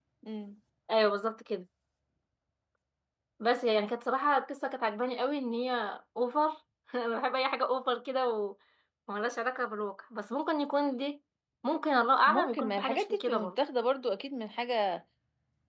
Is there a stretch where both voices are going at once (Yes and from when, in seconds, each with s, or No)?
Yes, from 12.3 s